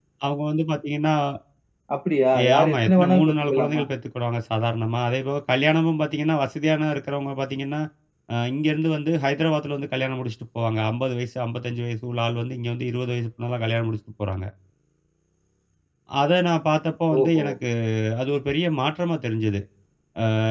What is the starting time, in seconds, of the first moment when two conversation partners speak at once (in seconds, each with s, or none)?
2.4 s